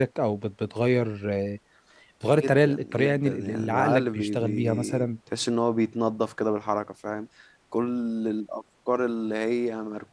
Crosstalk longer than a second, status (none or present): present